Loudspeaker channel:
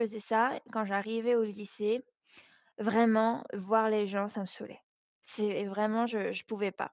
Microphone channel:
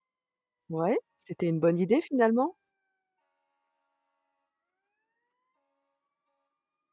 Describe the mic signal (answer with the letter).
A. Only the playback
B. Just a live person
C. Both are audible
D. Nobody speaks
B